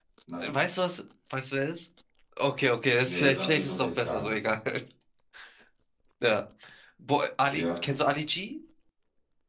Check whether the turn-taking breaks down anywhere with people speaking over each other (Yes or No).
Yes